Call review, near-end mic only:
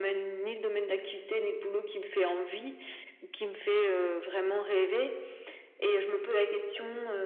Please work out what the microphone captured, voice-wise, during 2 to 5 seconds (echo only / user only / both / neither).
echo only